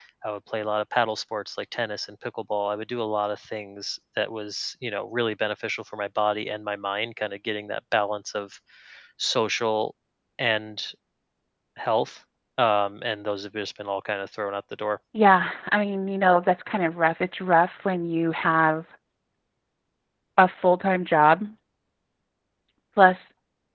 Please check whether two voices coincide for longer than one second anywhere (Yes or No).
No